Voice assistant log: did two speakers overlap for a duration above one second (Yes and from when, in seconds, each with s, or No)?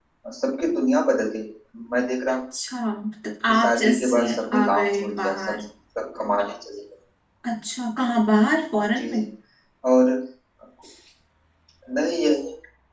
Yes, from 3.5 s